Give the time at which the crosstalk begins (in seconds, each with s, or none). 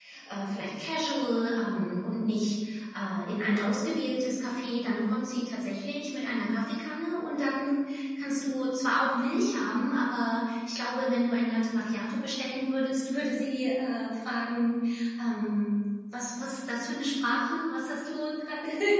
none